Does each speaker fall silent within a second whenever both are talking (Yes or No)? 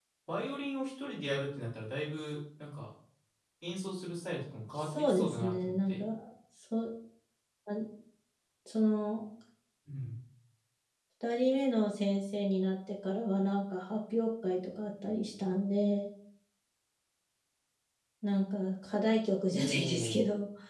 No